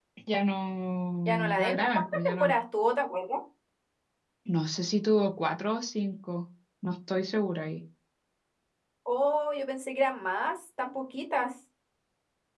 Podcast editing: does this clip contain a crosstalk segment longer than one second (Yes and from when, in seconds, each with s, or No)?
Yes, from 1.2 s